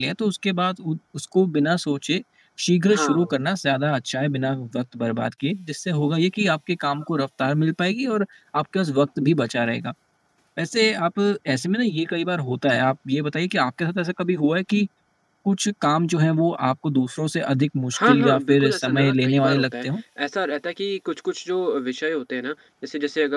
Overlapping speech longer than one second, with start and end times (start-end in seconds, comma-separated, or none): 18.1-19.9